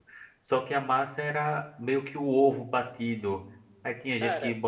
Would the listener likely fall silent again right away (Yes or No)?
Yes